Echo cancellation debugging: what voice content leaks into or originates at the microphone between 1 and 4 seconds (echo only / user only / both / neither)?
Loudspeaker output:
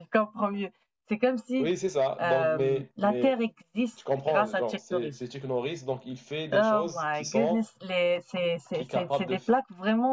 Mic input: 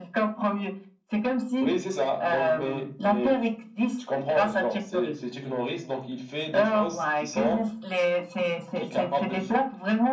echo only